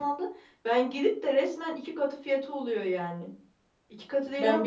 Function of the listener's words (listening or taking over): listening